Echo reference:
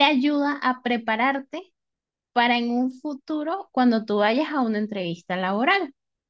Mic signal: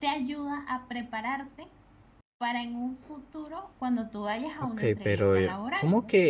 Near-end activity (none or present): present